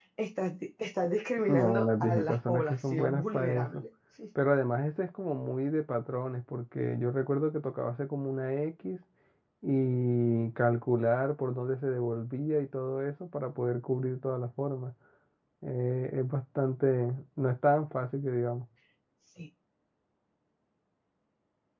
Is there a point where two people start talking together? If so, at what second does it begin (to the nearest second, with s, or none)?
1 s